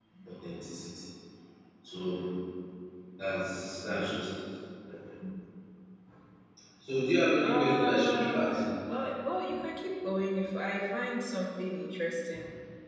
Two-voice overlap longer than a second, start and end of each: 7.4-8.6

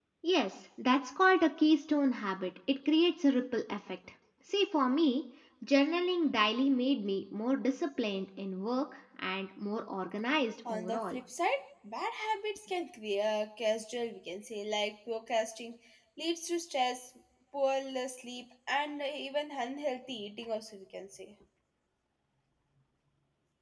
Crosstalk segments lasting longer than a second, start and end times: none

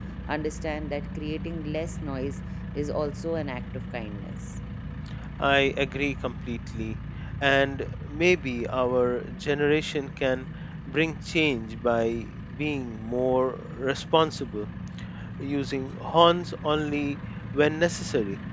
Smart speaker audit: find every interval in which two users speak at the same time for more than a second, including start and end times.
none

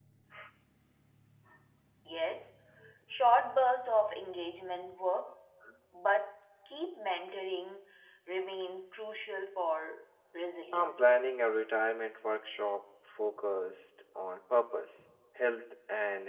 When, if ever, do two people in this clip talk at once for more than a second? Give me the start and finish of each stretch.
none

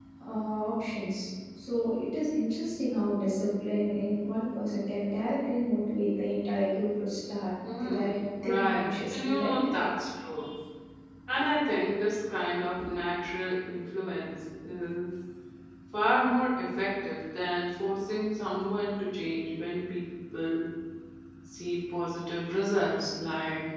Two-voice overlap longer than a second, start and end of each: 7.8-9.6

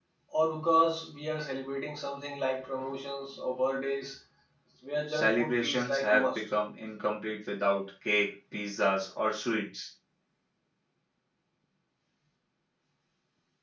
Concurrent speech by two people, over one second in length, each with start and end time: 5.1-6.4

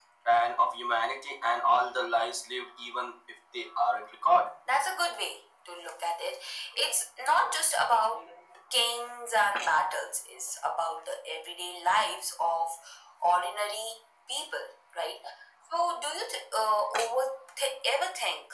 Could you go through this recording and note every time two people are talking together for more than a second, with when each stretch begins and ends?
none

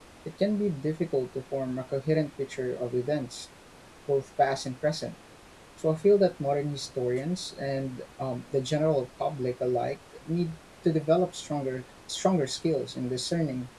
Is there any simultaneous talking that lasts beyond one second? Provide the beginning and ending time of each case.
none

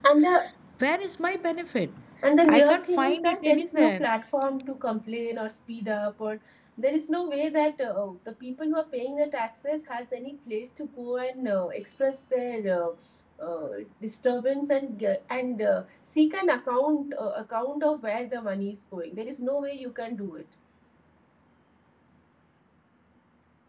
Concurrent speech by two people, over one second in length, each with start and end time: 2.4-4.0

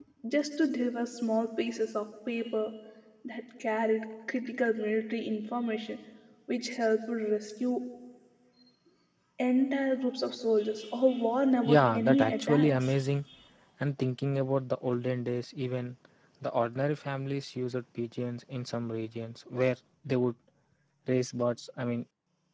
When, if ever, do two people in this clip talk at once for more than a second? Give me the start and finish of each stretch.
11.7-12.9

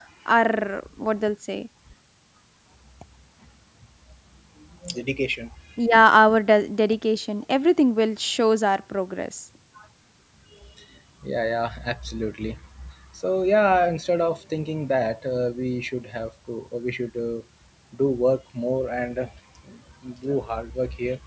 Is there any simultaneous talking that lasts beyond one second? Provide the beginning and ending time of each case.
none

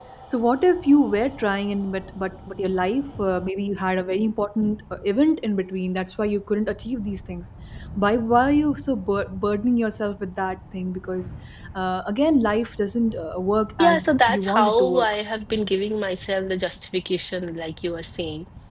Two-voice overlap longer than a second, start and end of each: 13.8-15.1

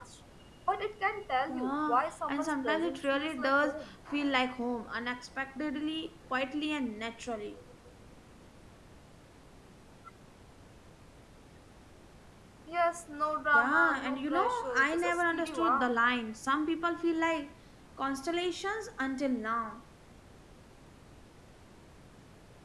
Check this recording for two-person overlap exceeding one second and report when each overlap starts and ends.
1.5-3.9, 13.5-15.9

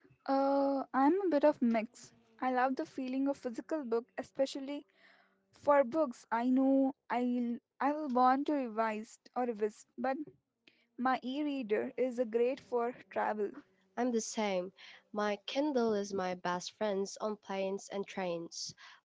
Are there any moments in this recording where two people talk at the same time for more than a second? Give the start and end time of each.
none

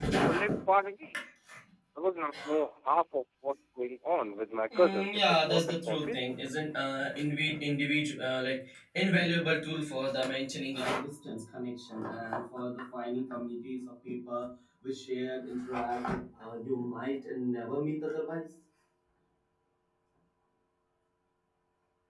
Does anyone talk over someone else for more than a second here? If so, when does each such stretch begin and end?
4.8-6.2

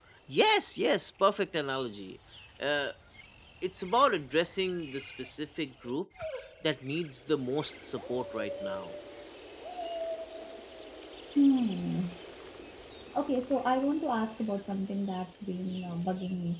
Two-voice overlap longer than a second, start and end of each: none

